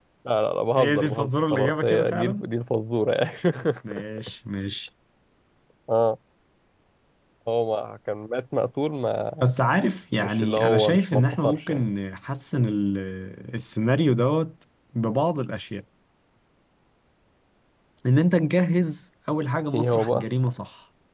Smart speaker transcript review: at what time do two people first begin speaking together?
0.8 s

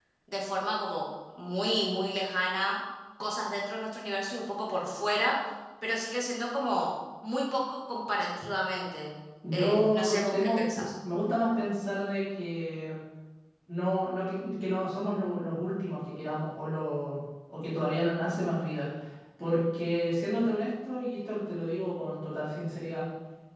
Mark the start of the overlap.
9.4 s

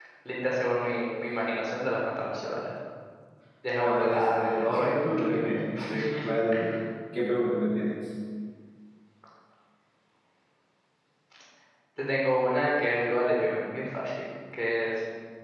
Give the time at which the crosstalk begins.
3.8 s

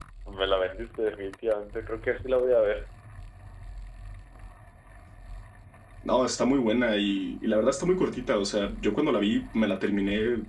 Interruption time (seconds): none

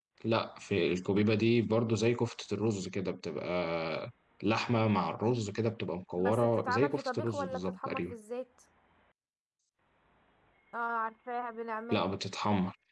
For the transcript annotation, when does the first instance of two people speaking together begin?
6.2 s

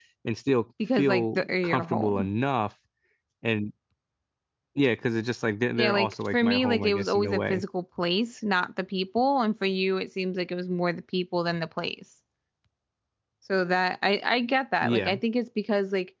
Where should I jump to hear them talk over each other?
1.0 s

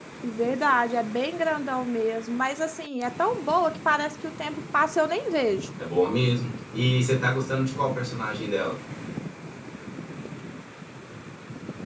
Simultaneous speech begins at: none

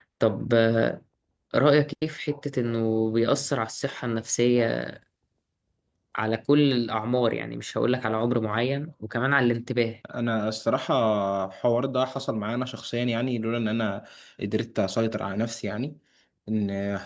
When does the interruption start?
none

